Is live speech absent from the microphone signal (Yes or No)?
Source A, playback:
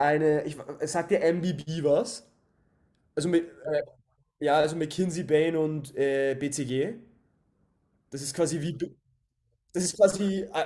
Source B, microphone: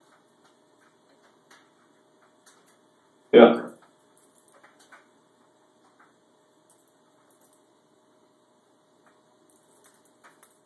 No